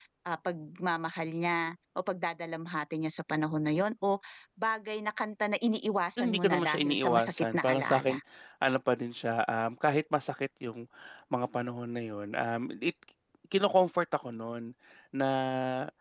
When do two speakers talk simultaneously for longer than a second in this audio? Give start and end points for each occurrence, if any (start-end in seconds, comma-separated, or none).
6.2-8.2